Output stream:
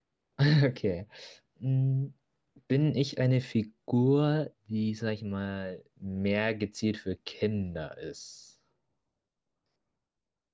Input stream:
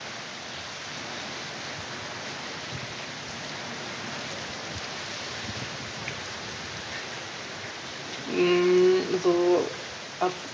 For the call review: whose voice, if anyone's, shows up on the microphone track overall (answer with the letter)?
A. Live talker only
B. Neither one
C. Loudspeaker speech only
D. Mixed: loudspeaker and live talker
A